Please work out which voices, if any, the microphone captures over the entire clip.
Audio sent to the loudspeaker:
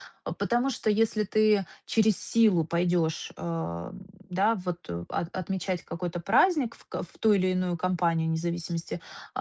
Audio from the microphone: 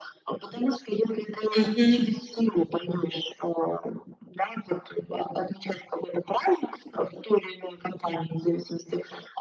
both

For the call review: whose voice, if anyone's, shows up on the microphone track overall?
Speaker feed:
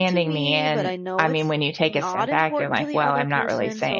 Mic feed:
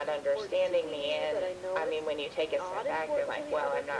echo only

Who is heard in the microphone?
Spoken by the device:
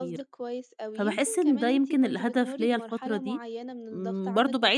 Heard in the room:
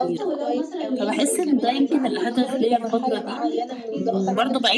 both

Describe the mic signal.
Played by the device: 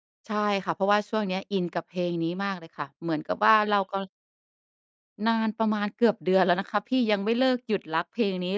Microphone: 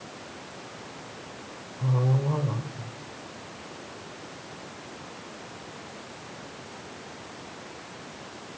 user only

